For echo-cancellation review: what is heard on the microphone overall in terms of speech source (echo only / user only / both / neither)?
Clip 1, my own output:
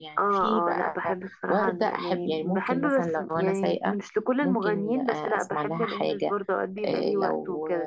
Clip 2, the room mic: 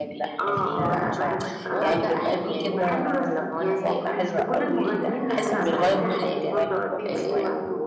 both